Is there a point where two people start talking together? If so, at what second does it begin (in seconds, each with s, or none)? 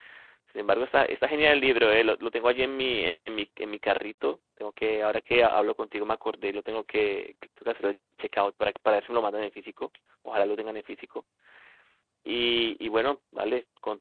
none